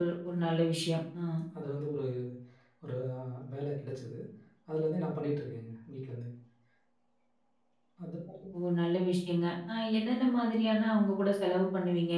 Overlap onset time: none

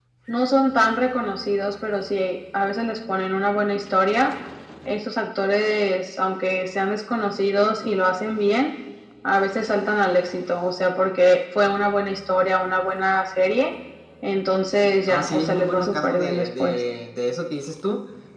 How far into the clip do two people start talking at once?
15.1 s

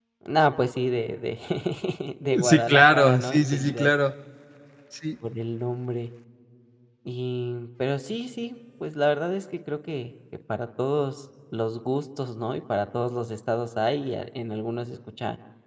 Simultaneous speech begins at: 2.4 s

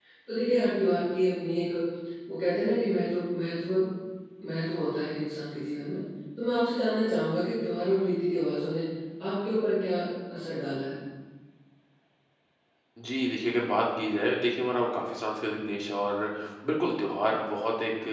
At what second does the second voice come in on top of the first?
none

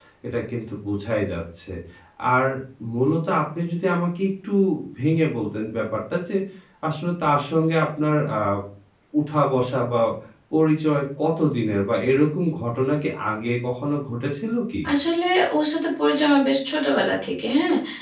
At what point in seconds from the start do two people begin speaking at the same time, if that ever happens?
none

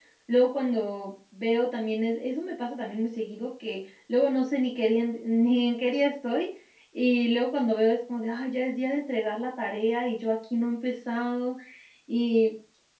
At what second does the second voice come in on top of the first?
none

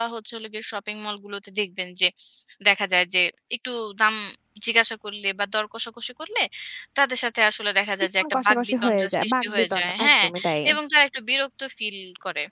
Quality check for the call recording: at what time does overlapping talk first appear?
8.2 s

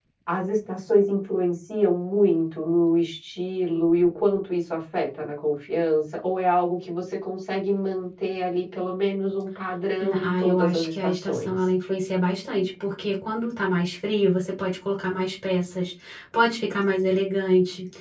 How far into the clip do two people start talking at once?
10.0 s

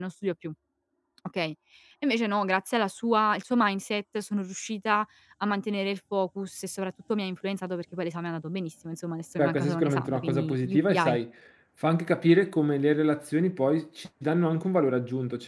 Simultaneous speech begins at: 9.4 s

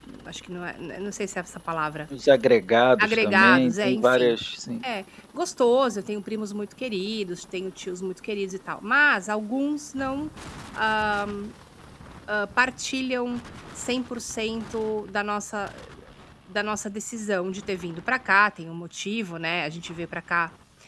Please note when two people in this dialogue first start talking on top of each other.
3.0 s

